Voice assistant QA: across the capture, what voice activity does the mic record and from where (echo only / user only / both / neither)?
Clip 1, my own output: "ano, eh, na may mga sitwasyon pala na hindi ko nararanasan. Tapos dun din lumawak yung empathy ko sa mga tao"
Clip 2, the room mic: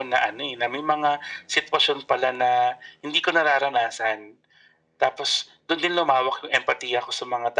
echo only